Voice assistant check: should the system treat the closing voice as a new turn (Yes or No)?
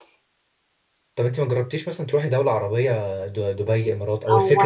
Yes